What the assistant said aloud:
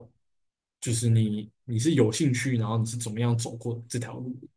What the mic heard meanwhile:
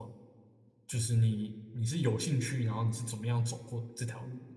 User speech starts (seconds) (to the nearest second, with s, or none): none